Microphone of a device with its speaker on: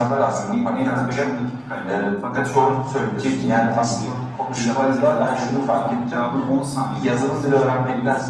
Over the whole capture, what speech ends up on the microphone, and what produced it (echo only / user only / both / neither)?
echo only